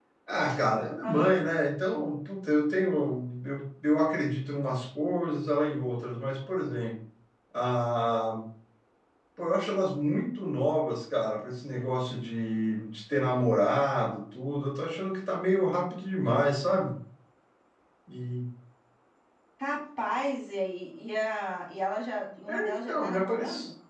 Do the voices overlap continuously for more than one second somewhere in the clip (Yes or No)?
Yes